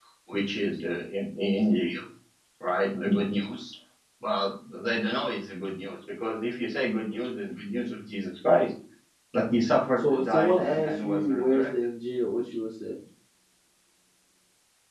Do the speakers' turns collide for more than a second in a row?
Yes, from 10.0 s

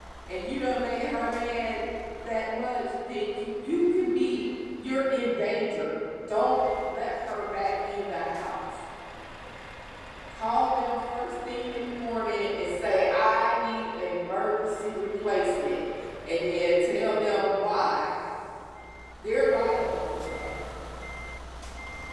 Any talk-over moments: No

